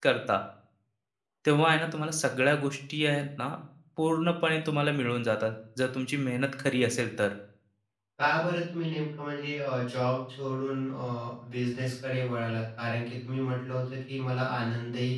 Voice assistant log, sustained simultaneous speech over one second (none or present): none